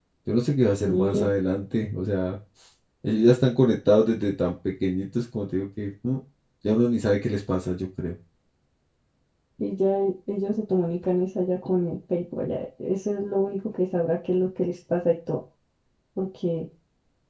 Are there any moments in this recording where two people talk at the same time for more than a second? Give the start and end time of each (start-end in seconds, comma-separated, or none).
none